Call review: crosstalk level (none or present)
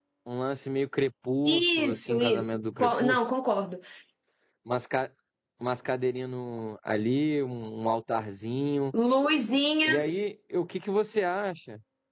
present